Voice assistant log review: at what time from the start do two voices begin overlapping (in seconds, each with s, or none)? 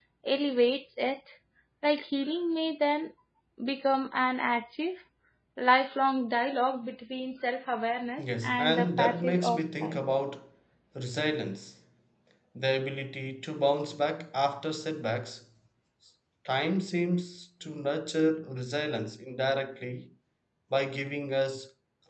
8.2 s